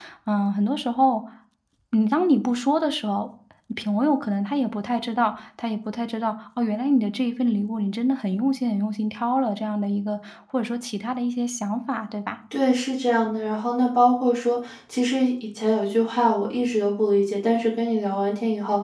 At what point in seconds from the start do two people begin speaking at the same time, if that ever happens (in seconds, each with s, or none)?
none